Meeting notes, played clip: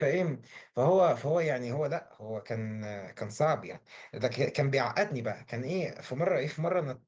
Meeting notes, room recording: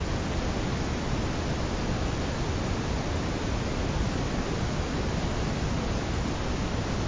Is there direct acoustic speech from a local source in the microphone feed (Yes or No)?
No